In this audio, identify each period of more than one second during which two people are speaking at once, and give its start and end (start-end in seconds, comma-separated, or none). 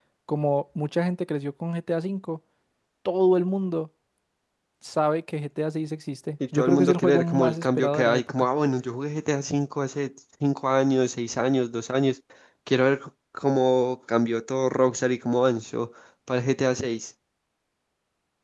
6.5-8.5